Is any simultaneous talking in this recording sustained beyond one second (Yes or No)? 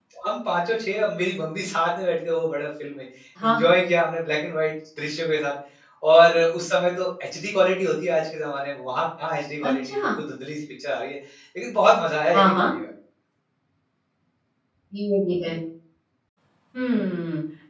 No